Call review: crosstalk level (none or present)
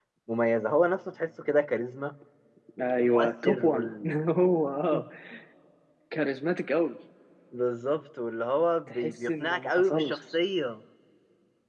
present